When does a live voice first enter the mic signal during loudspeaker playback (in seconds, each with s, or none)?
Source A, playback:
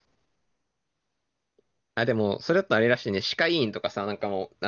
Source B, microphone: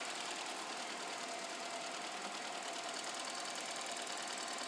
none